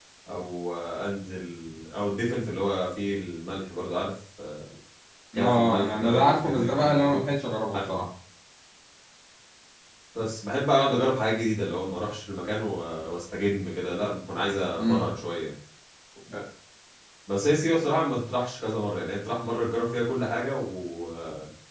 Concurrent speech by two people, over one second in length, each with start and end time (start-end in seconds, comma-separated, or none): 5.4-7.2